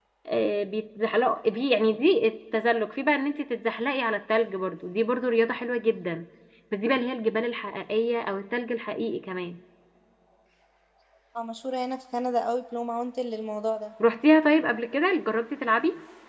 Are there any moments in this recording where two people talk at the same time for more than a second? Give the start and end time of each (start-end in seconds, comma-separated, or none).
none